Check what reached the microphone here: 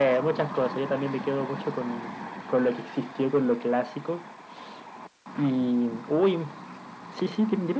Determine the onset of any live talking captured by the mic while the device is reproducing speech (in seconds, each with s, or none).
none